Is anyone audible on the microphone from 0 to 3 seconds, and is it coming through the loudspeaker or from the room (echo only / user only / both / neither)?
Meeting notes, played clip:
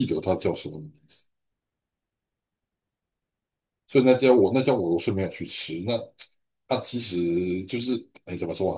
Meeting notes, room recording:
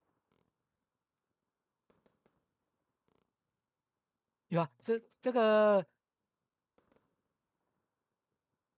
neither